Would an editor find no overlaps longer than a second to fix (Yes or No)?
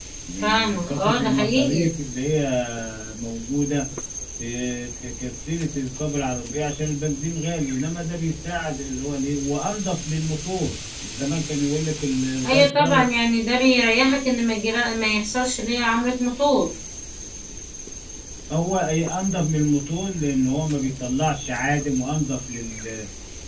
No